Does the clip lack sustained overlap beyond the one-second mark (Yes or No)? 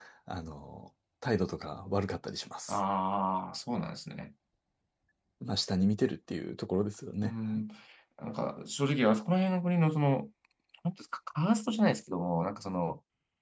Yes